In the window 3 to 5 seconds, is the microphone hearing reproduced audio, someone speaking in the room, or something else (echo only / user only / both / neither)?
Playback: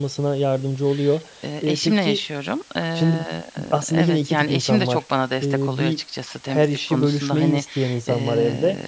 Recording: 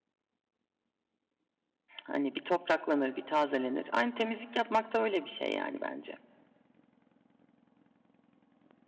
user only